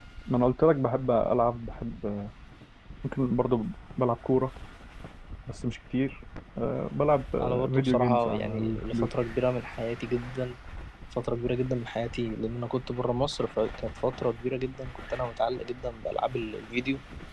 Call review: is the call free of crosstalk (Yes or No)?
No